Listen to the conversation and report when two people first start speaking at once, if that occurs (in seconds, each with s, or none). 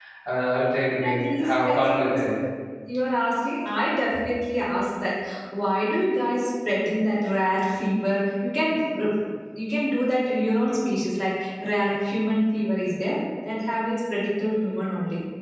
1.0 s